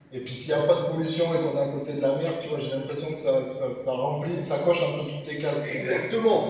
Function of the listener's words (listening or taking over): taking over